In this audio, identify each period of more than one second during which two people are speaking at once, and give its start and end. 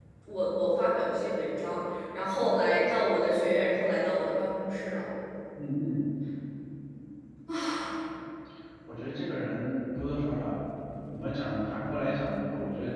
none

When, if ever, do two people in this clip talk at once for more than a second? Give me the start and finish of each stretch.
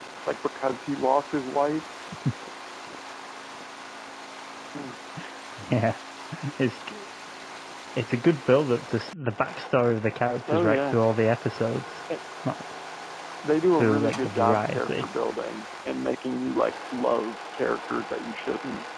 13.8-15.1

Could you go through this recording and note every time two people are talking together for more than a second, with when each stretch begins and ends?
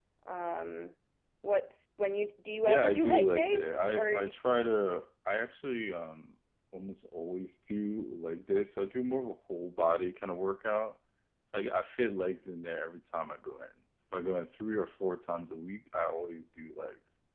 2.6-4.3

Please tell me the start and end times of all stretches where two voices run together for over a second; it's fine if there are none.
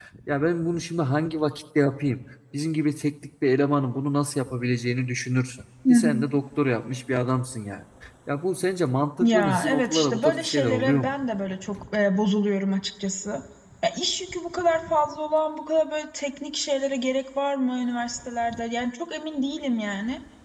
9.2-11.2

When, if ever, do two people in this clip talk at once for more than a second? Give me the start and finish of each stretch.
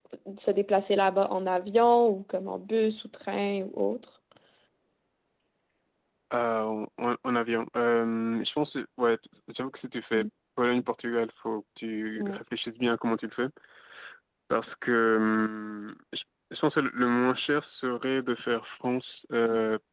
none

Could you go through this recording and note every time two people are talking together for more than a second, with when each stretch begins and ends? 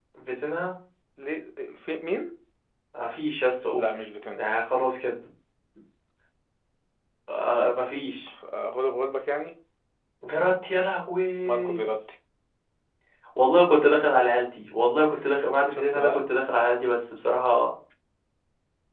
none

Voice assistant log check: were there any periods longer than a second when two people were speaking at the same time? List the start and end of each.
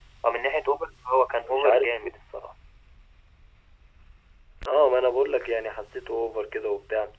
none

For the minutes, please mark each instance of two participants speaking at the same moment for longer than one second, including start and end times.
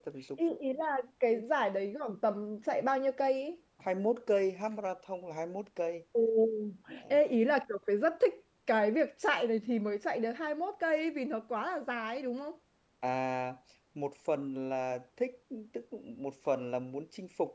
none

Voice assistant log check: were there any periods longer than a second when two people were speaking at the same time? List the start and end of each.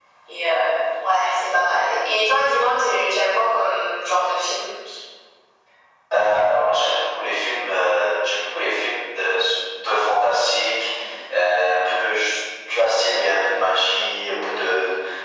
none

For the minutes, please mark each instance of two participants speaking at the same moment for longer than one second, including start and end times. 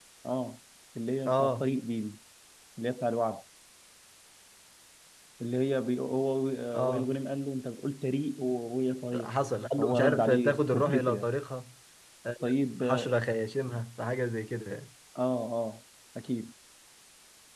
9.8-11.3

